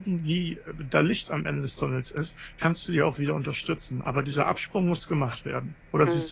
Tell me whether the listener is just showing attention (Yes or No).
No